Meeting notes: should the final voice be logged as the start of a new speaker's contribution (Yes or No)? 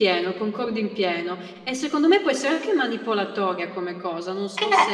Yes